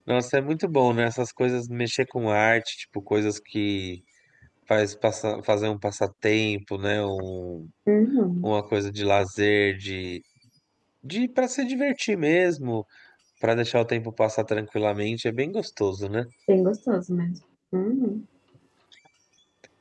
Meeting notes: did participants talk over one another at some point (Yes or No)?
No